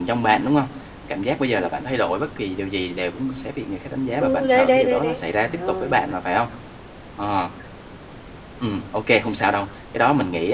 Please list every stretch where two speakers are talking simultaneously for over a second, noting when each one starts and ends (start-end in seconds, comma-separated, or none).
4.2-6.0